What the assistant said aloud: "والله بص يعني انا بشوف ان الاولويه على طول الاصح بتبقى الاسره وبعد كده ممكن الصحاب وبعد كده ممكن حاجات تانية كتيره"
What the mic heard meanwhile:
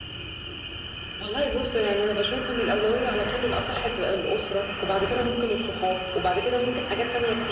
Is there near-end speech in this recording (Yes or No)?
No